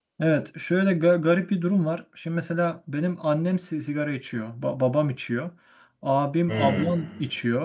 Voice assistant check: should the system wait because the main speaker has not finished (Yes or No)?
Yes